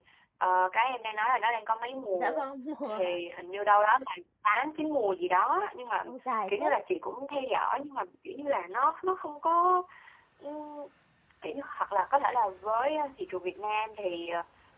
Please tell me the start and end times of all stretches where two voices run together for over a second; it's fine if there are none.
none

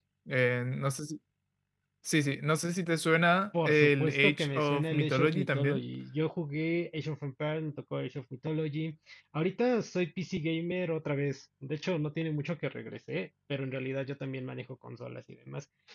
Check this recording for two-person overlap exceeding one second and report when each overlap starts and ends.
3.6-5.8

